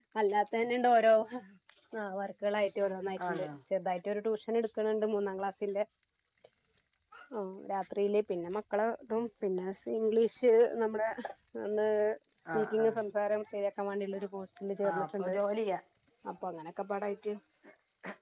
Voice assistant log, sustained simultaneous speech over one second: none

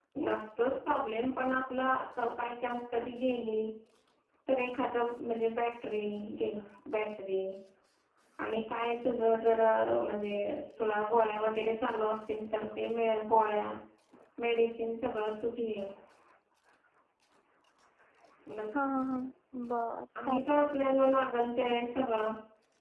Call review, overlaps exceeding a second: none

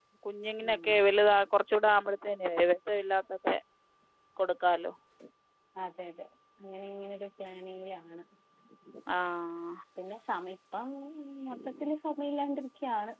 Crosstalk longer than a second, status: none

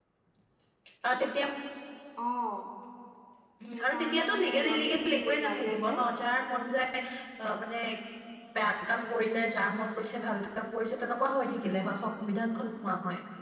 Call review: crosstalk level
present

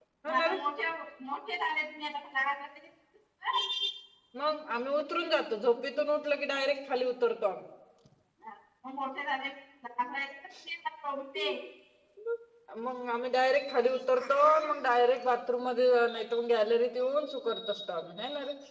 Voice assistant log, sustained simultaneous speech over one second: none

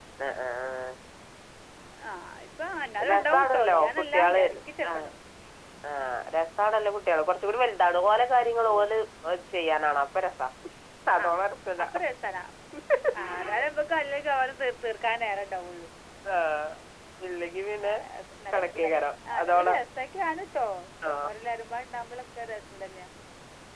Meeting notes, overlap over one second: present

